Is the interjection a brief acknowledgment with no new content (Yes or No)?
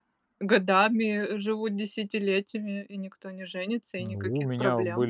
No